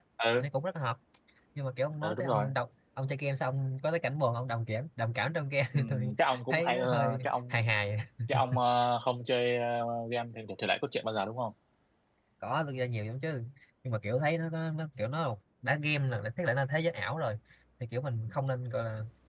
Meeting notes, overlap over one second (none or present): present